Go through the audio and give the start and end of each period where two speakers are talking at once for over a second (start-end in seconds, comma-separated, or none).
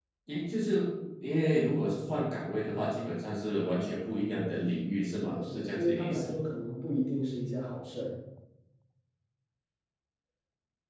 5.1-6.3